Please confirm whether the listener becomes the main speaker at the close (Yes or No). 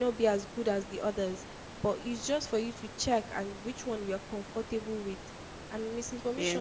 No